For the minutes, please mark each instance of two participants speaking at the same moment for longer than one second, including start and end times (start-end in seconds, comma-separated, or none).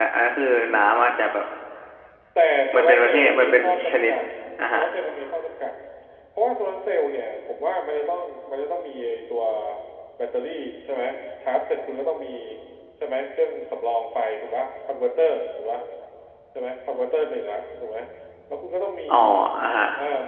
2.8-4.1